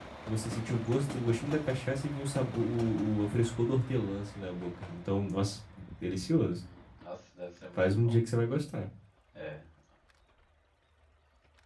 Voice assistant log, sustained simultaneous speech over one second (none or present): none